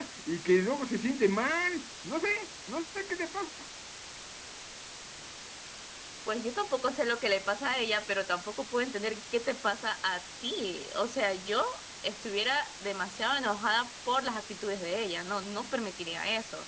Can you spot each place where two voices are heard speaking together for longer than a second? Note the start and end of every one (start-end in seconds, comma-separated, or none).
none